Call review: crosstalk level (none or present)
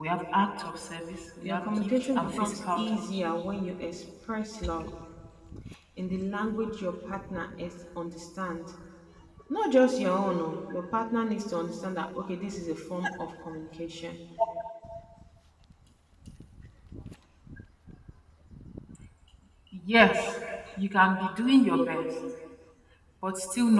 present